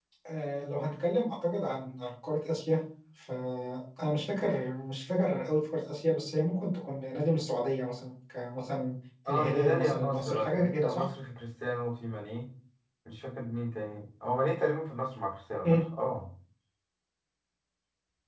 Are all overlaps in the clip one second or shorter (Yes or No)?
No